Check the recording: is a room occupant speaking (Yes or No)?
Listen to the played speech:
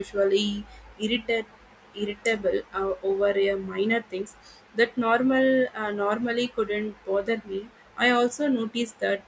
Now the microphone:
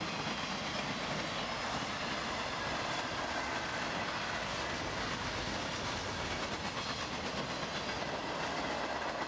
No